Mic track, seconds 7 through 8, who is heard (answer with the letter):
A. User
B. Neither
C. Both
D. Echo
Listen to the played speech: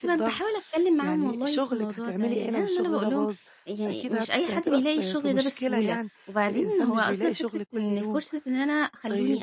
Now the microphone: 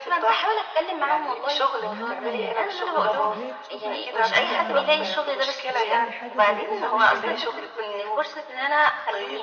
C